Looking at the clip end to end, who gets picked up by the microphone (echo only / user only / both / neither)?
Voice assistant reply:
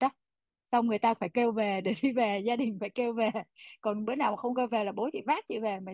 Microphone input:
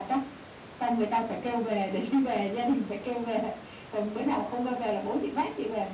echo only